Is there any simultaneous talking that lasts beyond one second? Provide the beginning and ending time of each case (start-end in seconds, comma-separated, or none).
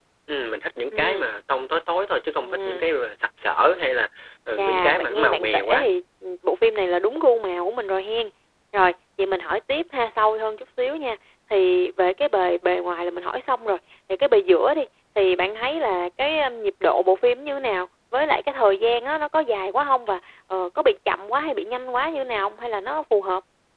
4.6-5.9